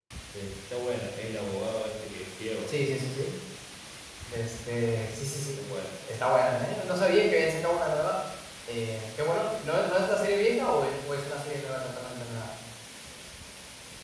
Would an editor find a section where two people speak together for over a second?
No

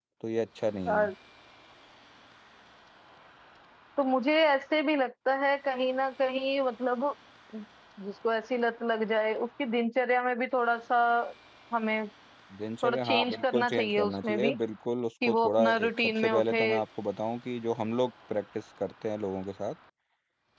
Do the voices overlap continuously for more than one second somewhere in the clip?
Yes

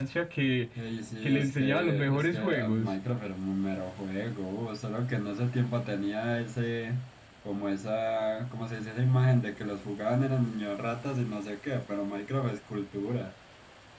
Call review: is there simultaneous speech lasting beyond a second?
Yes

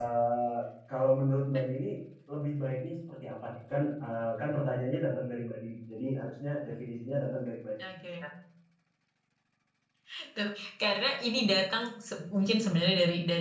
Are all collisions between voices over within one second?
Yes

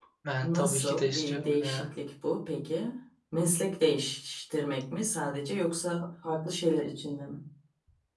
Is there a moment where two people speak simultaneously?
Yes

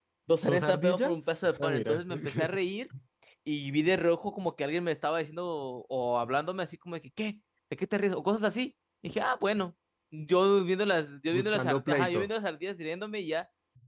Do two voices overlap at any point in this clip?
Yes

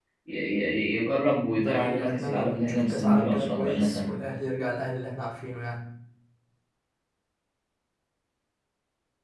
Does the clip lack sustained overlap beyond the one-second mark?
No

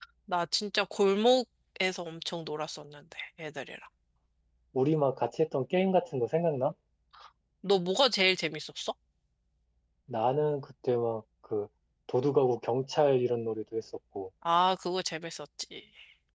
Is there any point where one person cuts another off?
No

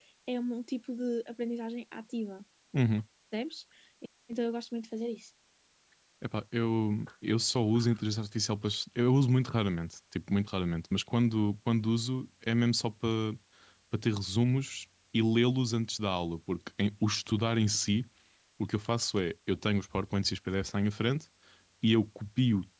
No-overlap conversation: Yes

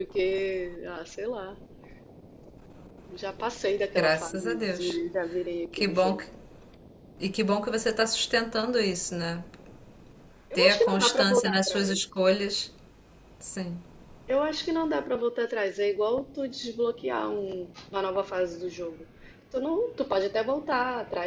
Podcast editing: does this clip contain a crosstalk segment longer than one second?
Yes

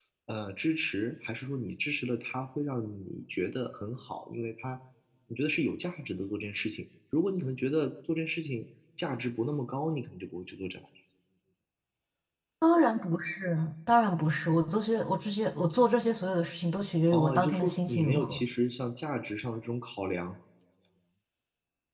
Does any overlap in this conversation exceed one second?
Yes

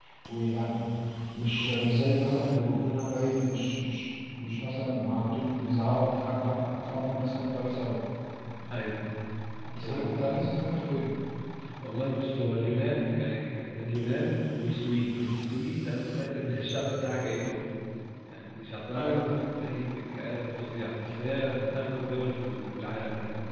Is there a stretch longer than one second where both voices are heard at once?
No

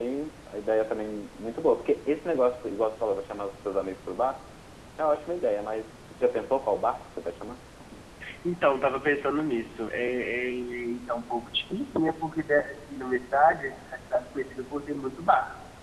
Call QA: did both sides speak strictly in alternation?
Yes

